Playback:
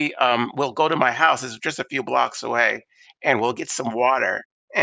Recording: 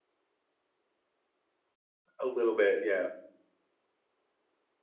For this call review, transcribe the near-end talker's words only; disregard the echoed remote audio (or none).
A little bit, yeah.